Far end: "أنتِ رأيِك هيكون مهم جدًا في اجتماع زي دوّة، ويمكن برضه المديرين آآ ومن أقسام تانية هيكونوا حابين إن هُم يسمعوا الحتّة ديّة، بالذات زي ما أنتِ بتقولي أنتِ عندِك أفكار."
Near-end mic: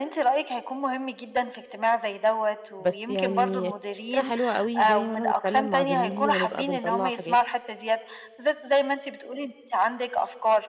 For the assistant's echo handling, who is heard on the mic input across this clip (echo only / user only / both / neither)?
both